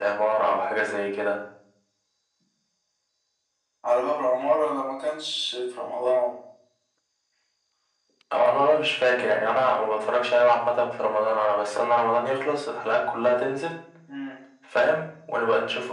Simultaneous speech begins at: none

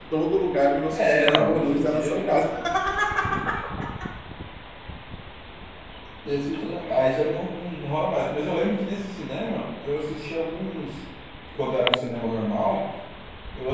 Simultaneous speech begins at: 1 s

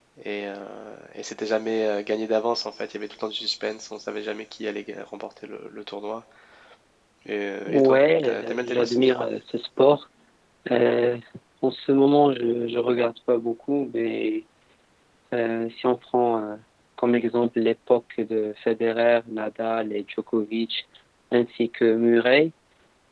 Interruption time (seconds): 8 s

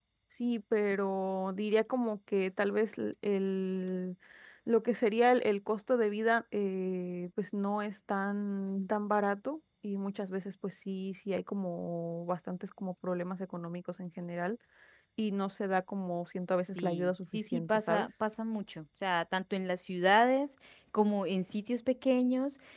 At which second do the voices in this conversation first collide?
17 s

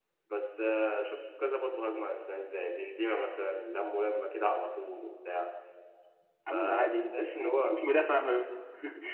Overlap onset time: 6 s

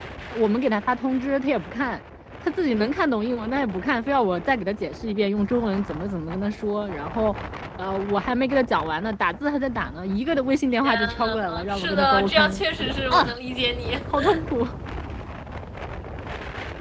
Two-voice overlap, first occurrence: 11 s

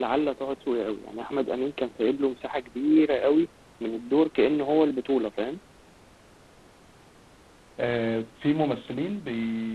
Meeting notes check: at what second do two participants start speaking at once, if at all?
none

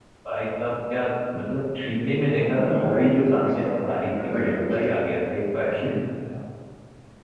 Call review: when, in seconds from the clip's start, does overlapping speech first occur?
2 s

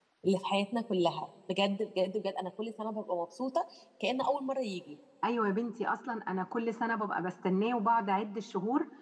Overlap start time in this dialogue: none

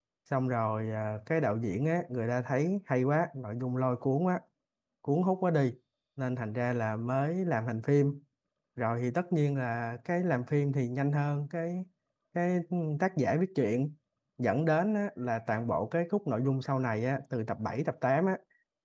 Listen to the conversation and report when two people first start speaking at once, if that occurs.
none

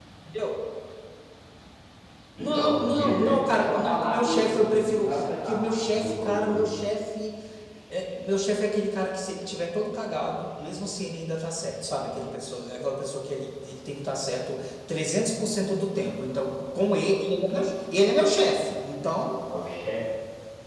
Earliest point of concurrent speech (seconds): 2 s

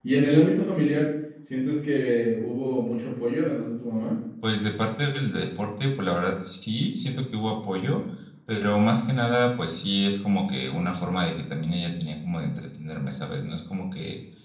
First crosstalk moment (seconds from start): none

